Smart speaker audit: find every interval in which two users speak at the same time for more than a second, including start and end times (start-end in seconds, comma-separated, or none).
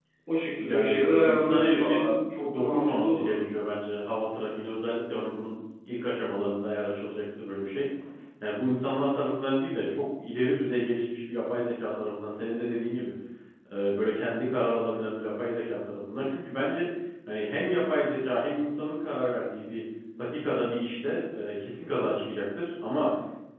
0.6-3.3